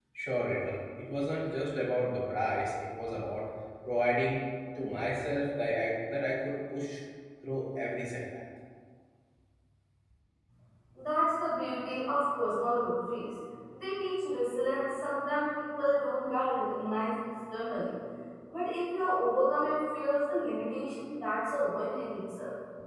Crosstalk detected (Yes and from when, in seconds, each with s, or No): No